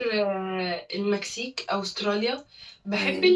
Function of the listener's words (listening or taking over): listening